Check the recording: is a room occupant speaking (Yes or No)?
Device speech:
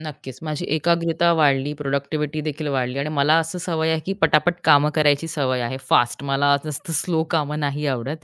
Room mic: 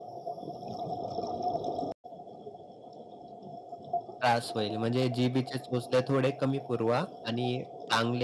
Yes